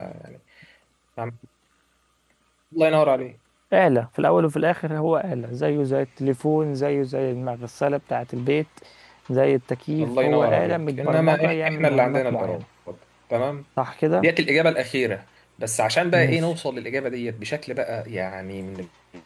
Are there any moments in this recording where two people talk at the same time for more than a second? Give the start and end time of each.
10.0-12.6

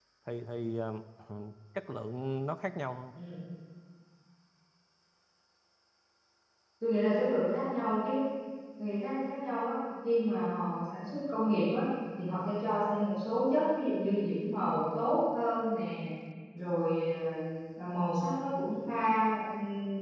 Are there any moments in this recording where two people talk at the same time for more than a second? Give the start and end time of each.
none

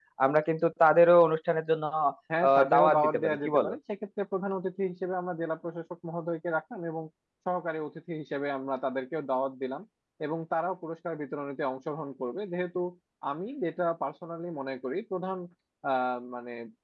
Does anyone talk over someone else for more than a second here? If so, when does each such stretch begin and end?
2.5-3.7

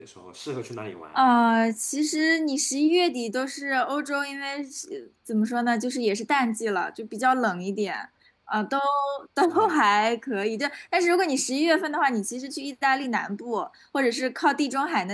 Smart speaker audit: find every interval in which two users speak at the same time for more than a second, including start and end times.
none

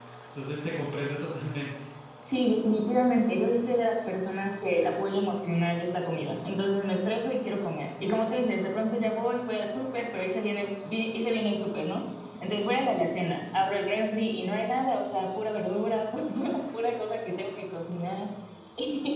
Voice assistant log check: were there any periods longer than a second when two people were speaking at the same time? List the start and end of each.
none

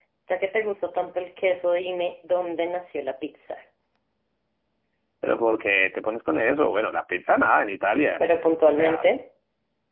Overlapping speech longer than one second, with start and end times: none

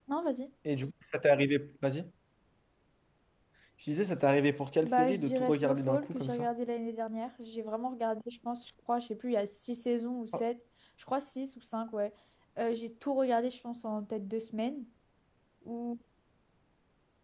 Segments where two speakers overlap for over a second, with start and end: 4.8-6.5

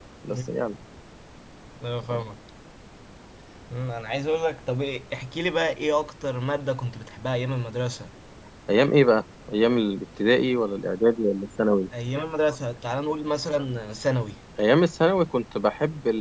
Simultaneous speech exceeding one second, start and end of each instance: none

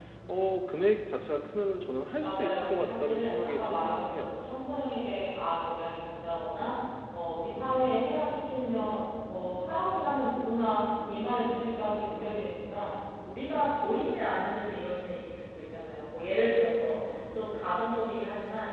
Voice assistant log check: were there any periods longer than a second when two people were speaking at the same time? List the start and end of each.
2.2-4.3

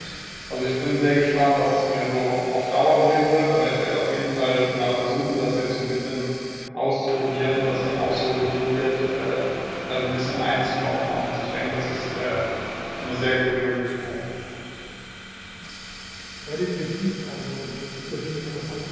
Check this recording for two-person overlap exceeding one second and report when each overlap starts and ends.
none

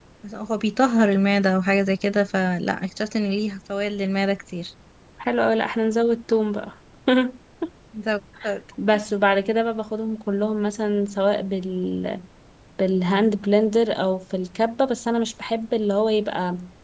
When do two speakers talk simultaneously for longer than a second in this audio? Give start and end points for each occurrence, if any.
none

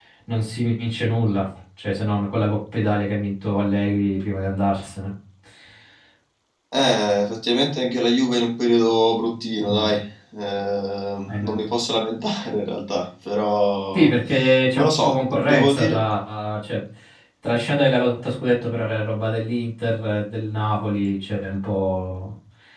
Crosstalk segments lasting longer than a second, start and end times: 14.7-16.0

